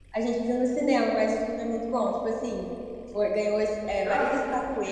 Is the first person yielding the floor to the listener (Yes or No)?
Yes